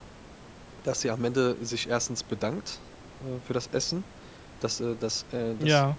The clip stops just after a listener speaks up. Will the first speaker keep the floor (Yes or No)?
Yes